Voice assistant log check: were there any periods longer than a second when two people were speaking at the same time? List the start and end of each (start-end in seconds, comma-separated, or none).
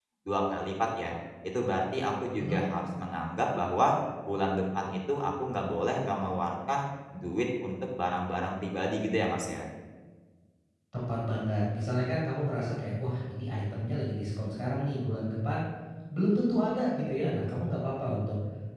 none